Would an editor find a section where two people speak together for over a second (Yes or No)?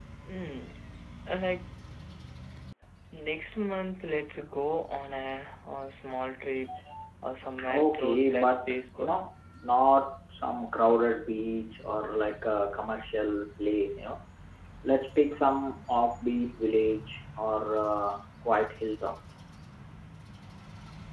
Yes